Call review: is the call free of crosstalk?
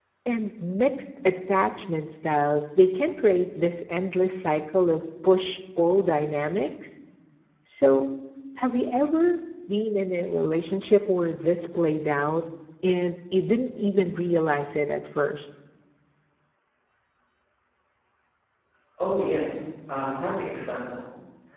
Yes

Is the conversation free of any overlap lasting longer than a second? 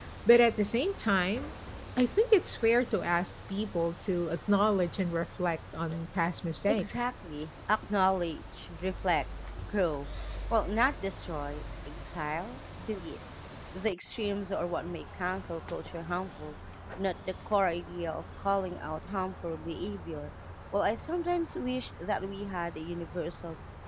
Yes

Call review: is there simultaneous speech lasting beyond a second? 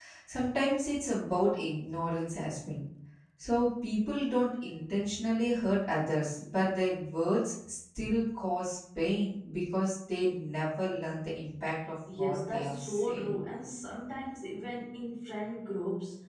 Yes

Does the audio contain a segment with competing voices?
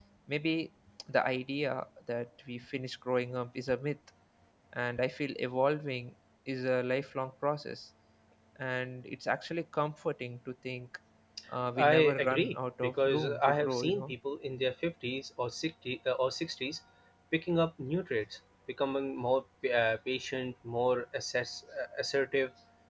Yes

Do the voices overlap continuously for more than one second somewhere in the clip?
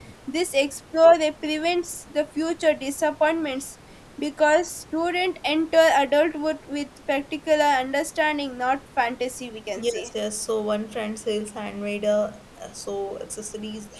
No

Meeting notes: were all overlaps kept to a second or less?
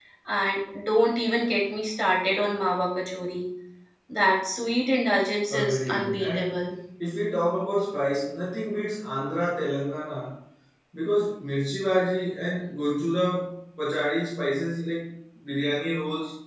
No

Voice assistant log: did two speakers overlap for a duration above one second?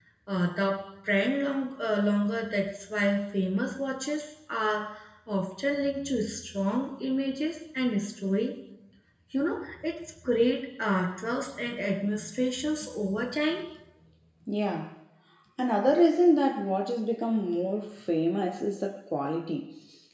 No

